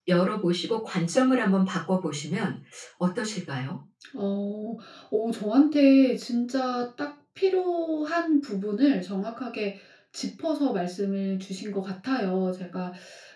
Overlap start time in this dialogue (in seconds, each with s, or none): none